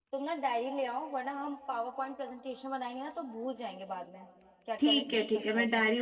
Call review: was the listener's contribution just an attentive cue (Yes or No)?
No